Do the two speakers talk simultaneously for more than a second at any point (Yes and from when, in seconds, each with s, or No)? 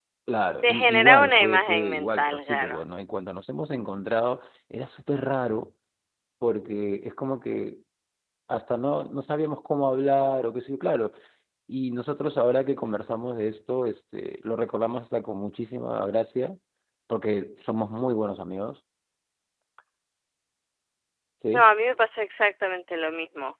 Yes, from 0.6 s